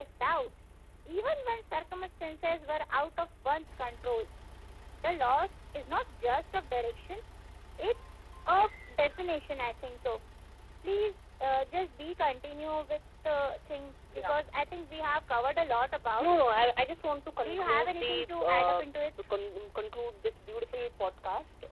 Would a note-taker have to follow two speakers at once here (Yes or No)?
Yes